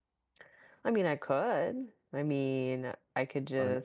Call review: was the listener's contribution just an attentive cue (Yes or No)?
Yes